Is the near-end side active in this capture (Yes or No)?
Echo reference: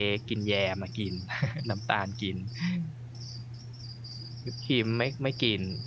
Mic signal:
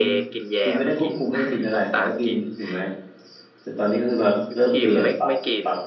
Yes